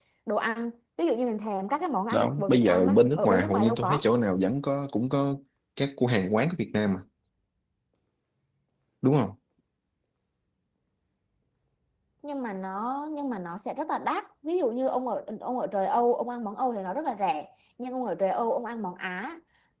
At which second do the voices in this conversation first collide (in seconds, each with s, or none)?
2.1 s